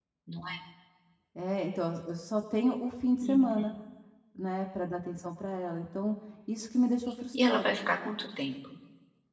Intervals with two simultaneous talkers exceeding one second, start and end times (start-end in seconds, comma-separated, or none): none